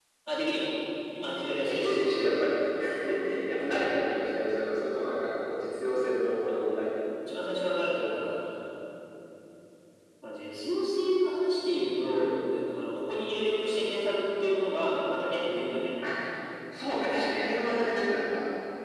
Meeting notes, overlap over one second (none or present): none